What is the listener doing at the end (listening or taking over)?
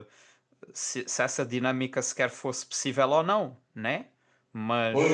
taking over